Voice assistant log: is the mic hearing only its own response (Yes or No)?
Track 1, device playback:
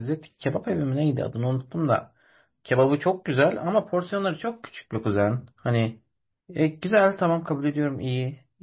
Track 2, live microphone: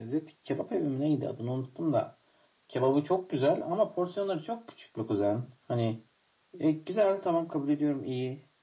Yes